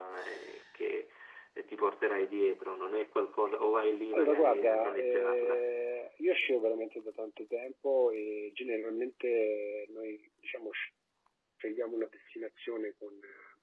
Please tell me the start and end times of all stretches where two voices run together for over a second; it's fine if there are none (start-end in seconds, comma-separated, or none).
4.1-5.6